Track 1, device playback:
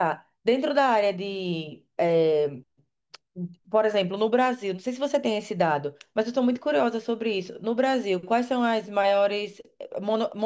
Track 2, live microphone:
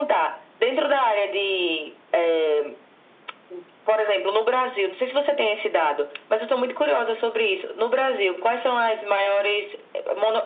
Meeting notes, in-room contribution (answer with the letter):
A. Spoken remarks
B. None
B